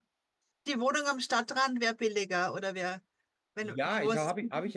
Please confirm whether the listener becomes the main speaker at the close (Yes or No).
Yes